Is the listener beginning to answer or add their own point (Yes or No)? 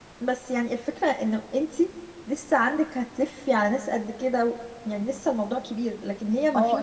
Yes